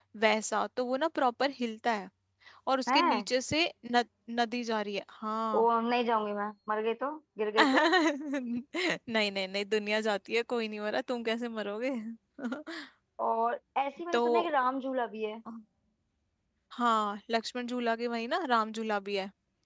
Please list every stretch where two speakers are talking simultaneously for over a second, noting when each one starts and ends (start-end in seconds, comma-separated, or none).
none